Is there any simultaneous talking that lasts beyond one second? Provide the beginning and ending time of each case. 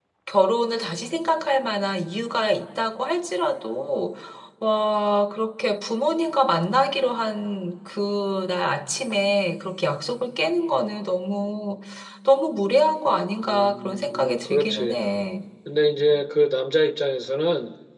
13.4-15.0

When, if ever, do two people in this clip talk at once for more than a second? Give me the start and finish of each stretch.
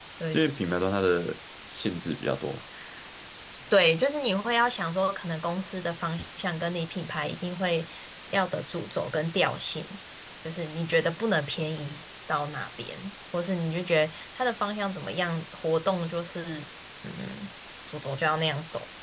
none

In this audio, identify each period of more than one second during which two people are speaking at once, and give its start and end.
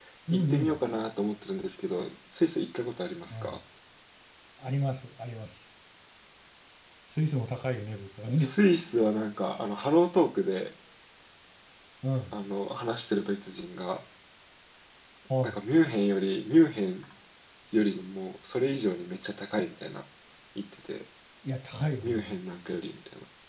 none

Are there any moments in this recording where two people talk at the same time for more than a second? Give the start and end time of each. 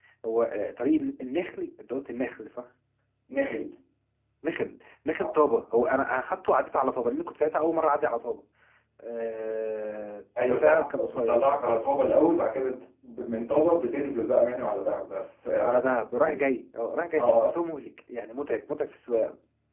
10.5-11.8

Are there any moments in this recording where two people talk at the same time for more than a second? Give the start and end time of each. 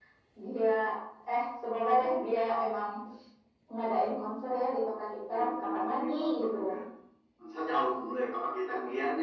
5.3-6.5

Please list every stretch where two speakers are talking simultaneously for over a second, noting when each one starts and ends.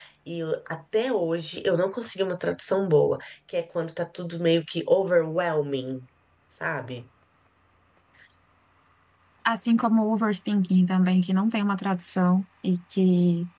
none

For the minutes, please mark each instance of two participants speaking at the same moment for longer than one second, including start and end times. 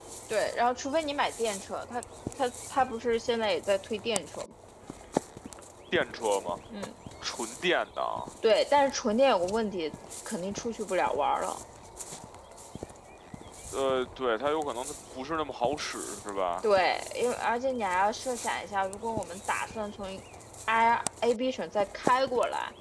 none

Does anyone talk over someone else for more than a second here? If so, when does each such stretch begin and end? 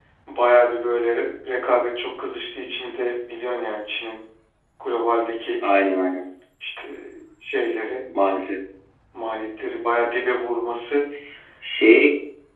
none

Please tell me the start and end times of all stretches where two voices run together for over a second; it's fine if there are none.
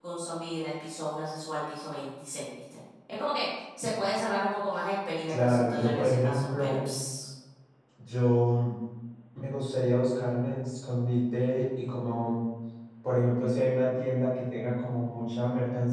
5.3-6.8

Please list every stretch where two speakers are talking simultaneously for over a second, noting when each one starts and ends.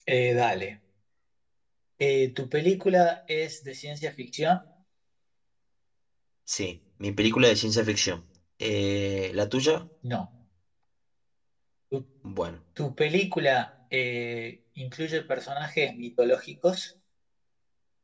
none

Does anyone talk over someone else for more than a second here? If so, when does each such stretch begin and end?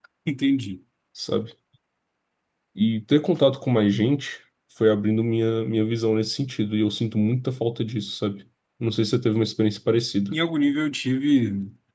none

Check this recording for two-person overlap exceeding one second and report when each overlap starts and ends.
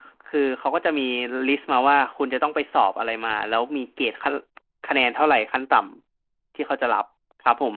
none

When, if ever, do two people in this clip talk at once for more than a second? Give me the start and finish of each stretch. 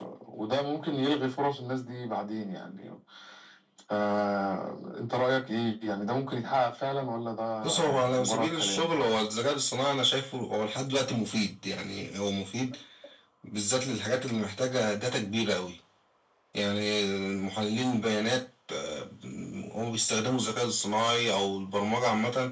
7.6-8.9

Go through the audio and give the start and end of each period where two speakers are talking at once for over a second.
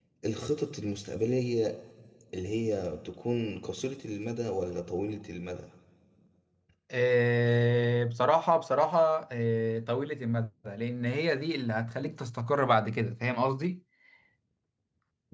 none

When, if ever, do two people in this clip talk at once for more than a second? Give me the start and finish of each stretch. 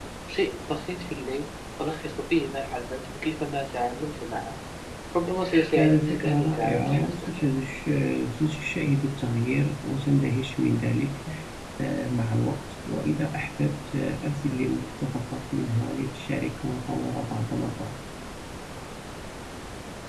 5.8-7.1

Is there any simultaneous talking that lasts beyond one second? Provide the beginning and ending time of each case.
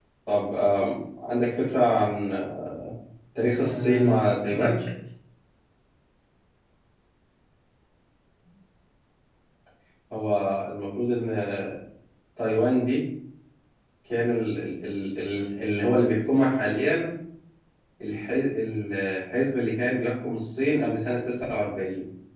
3.6-4.8

